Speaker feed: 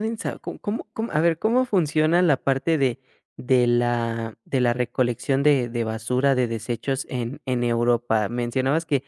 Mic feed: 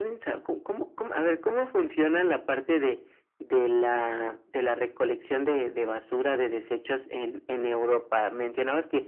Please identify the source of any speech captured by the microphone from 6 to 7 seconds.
echo only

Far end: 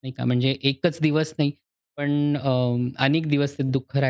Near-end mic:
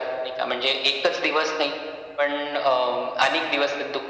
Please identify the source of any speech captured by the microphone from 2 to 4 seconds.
echo only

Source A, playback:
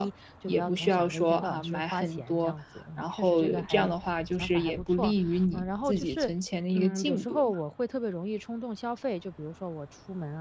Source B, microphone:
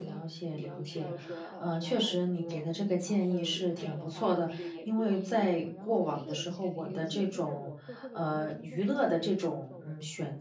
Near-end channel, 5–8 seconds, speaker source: both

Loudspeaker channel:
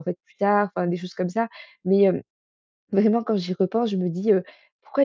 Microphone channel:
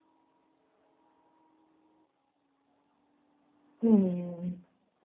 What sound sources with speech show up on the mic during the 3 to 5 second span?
user only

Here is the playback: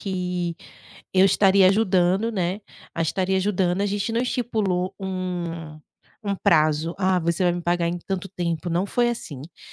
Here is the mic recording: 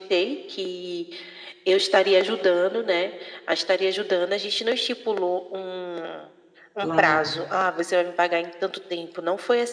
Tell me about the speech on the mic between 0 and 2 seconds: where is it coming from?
echo only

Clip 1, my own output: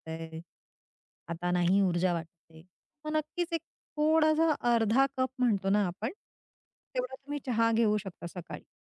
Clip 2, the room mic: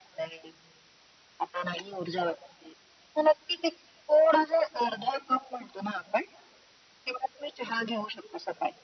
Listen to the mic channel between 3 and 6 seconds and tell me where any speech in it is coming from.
echo only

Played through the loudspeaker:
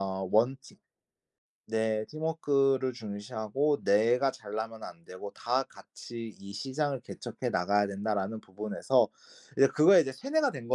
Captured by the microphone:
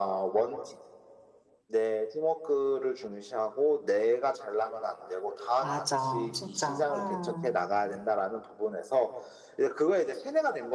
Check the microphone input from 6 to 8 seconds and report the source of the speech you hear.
both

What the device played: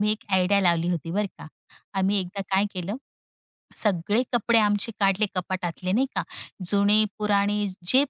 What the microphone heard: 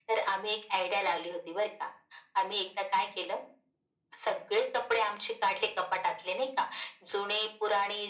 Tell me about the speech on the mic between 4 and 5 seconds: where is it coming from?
echo only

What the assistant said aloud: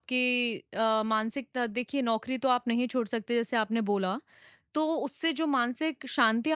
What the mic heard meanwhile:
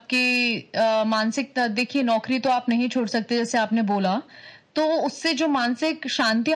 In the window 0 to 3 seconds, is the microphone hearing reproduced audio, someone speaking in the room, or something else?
echo only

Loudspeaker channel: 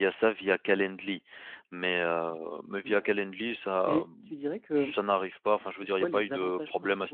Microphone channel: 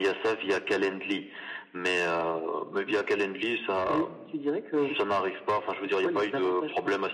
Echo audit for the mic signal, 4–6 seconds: echo only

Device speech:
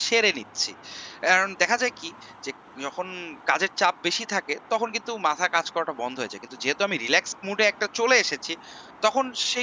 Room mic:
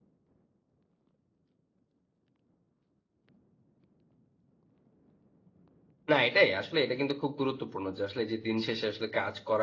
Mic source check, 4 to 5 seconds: neither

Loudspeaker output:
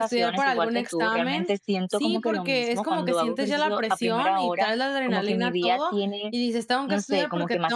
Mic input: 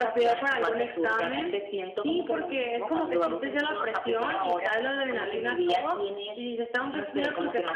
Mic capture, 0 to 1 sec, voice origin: echo only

